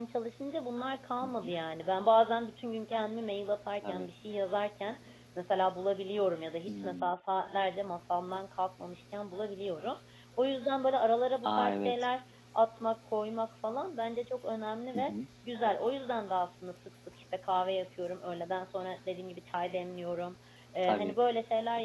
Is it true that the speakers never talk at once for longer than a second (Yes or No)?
Yes